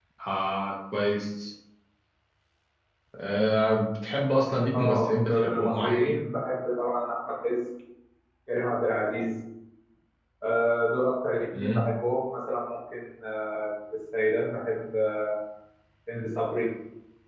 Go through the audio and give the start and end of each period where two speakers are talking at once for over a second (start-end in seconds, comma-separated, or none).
4.7-6.2